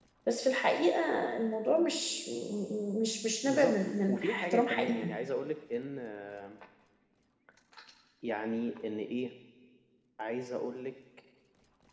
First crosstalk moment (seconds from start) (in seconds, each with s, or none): 3.5 s